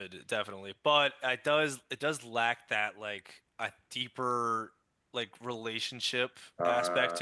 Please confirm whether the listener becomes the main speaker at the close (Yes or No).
No